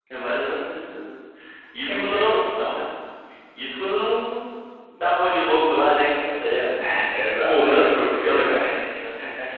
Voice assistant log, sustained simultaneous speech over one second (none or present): present